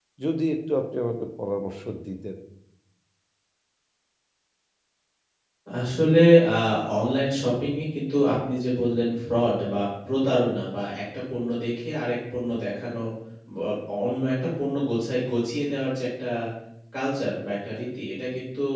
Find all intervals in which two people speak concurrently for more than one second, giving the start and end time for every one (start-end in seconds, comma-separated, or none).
none